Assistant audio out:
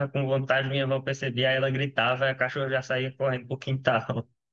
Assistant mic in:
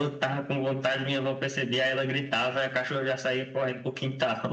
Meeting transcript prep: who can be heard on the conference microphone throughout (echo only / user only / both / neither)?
echo only